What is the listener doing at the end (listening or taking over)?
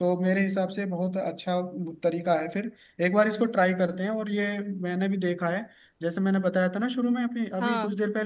listening